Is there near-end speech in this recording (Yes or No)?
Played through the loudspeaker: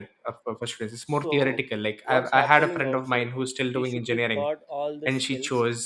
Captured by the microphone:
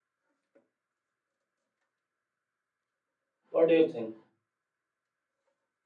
Yes